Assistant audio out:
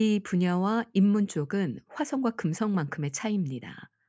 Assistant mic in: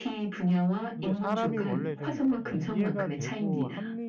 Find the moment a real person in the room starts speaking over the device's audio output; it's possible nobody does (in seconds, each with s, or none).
1.0 s